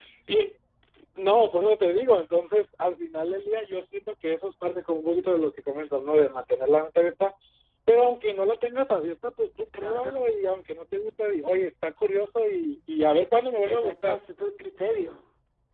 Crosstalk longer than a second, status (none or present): none